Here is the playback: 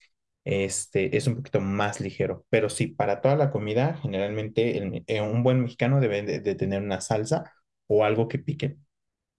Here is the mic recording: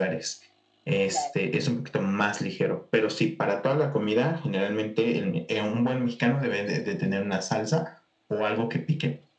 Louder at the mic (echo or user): echo